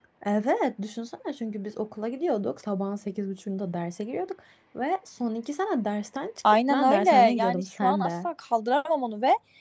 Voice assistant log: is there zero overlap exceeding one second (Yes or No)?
No